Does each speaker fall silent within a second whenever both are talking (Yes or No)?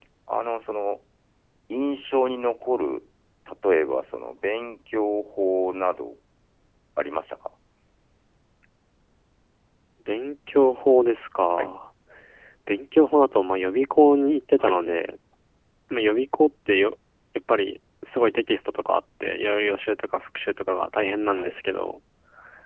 Yes